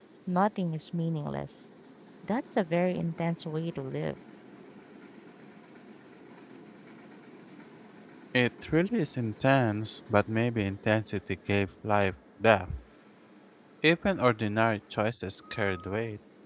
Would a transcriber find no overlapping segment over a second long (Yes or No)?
Yes